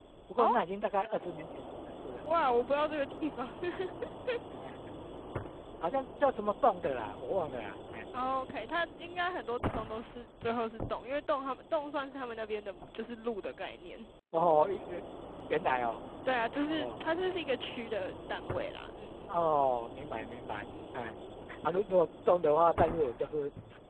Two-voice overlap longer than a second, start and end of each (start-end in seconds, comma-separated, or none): none